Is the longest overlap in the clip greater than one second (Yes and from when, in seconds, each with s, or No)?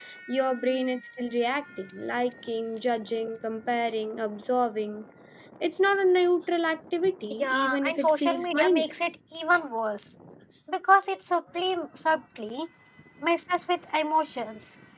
Yes, from 7.3 s